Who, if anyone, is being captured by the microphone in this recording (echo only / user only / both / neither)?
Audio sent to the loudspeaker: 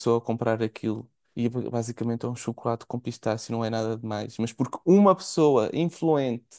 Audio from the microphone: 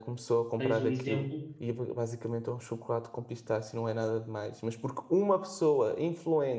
both